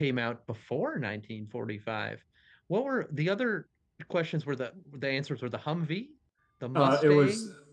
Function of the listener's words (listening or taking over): taking over